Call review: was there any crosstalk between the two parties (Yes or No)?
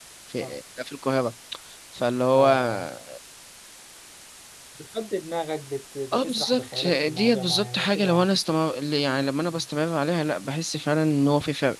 Yes